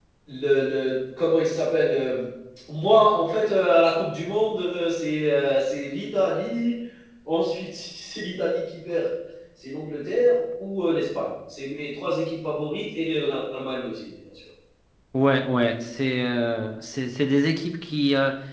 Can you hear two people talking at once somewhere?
No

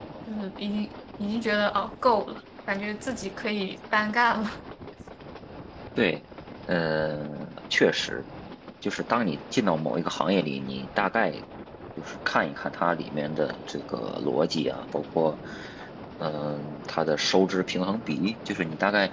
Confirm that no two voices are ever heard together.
Yes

